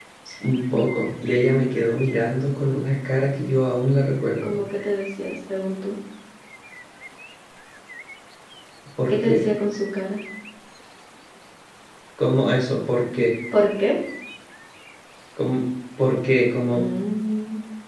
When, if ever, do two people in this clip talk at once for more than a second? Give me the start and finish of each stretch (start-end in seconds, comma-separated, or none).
none